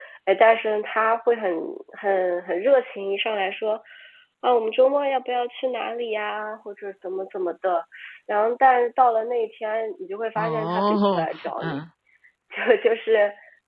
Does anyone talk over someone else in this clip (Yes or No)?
Yes